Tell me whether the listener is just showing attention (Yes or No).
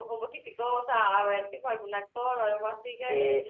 No